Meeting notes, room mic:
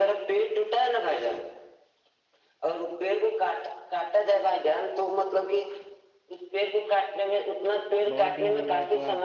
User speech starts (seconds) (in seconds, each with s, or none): 8.1 s